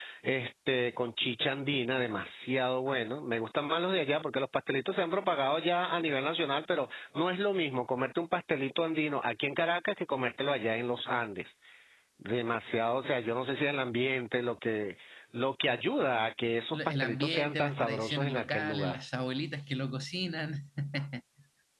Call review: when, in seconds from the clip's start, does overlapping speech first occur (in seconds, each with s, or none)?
16.7 s